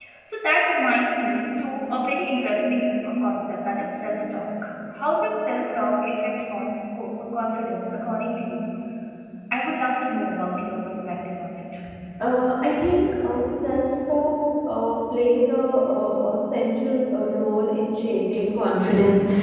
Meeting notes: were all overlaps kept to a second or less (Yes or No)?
Yes